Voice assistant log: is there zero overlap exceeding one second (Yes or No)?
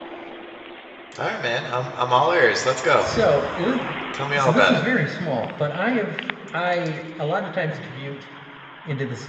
Yes